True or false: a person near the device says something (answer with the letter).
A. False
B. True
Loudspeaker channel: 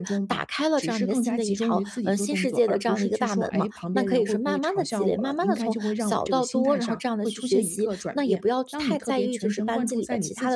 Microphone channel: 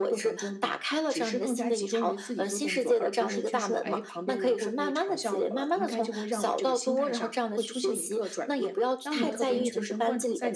B